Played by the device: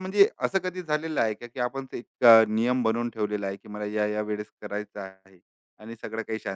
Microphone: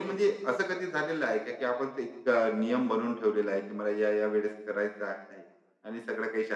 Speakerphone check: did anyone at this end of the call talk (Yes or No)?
No